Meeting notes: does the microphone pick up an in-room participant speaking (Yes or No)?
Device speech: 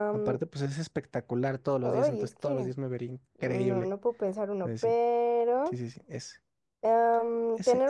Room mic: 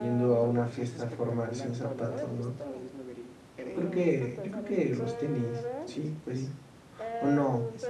Yes